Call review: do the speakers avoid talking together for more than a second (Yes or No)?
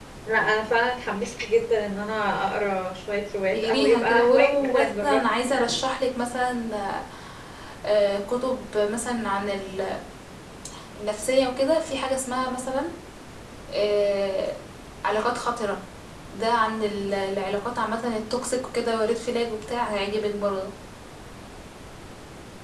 No